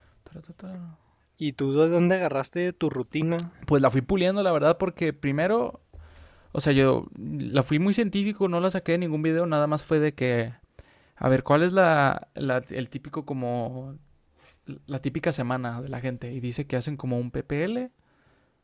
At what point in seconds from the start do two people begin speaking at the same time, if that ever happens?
none

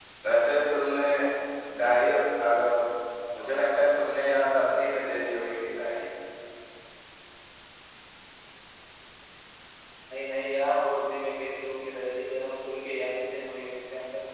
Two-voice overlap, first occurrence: none

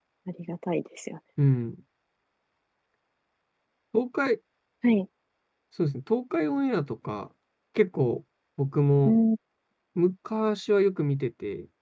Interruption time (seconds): none

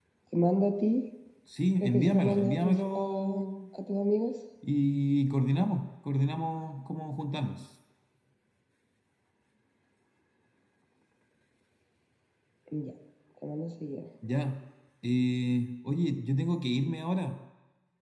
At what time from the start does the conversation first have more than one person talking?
1.8 s

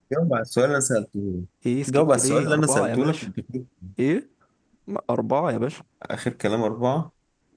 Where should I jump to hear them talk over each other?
1.9 s

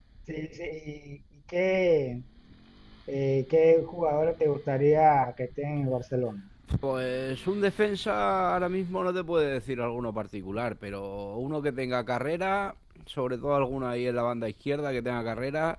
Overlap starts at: none

